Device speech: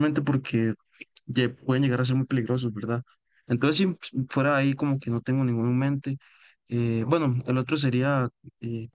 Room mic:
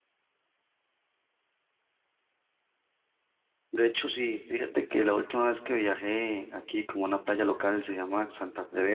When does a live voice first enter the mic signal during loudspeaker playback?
3.7 s

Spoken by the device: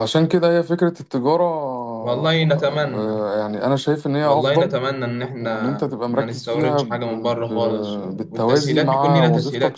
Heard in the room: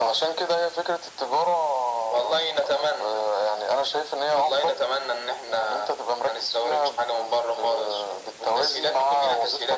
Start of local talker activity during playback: none

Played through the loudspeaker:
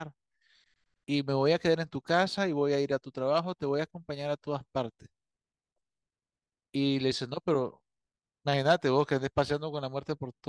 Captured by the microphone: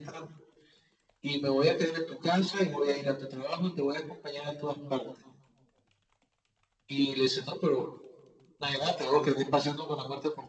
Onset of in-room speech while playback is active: none

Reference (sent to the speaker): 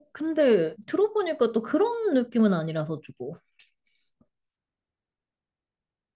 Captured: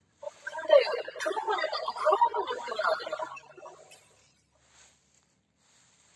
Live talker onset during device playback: none

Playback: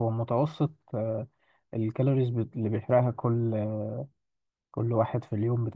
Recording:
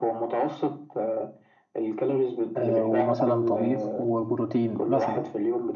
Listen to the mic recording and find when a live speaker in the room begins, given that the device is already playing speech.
2.5 s

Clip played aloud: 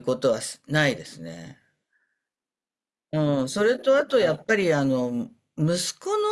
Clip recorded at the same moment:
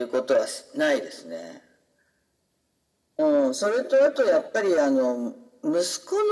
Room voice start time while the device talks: none

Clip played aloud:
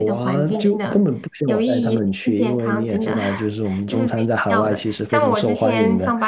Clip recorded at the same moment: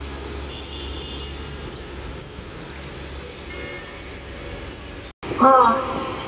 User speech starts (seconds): 5.4 s

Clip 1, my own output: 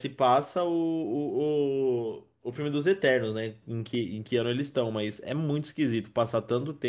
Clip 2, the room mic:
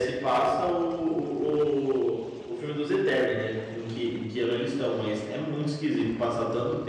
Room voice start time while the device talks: none

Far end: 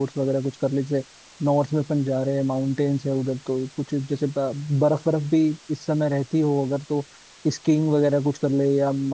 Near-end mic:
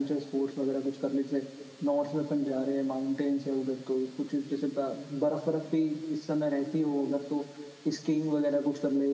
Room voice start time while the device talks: none

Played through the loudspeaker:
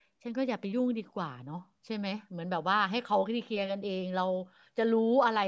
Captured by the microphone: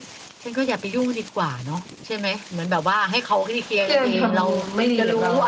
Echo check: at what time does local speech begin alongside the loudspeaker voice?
3.8 s

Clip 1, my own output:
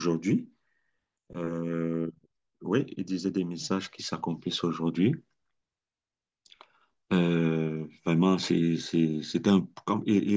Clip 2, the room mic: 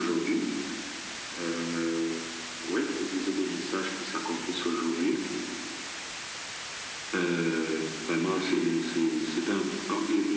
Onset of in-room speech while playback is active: none

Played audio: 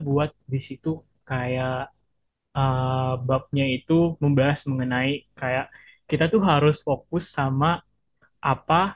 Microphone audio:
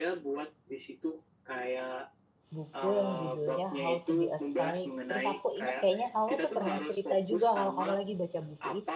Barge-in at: 2.6 s

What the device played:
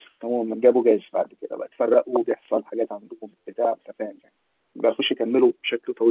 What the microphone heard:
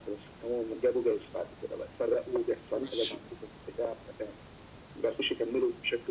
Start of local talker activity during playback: 2.8 s

